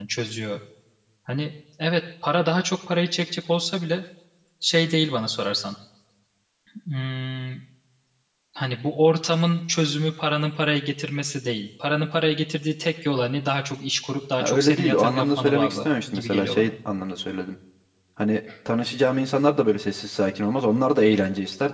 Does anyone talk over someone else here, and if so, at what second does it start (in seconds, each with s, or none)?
14.4 s